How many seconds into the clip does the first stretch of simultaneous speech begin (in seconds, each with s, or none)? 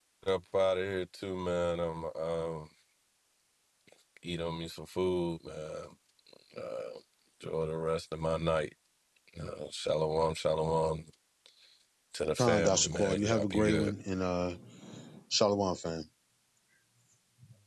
12.4 s